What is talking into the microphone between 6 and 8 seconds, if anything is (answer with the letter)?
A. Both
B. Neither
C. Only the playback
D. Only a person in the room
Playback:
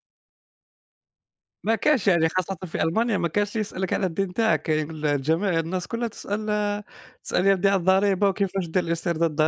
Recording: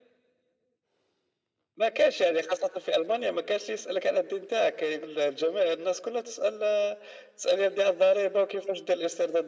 C